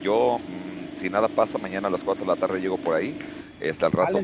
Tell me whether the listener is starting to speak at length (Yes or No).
No